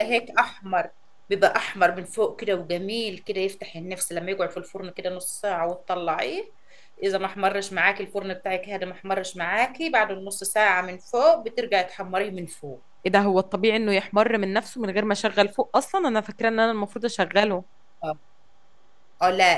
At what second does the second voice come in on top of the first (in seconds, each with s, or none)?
none